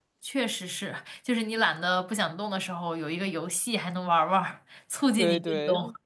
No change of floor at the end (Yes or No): No